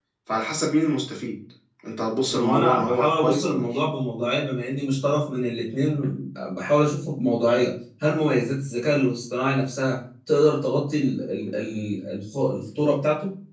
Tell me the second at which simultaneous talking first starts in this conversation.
2 s

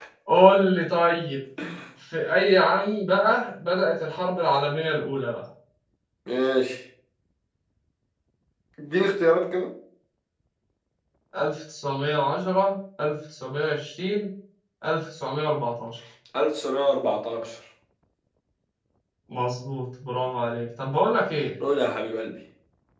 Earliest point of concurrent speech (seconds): none

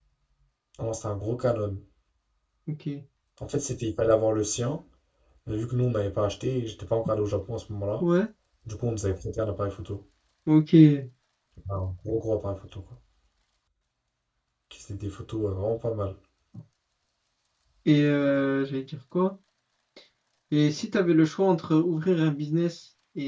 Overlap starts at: none

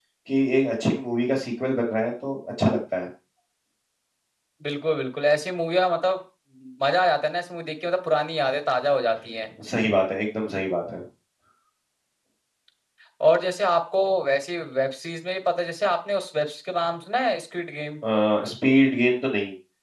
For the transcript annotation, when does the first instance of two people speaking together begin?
none

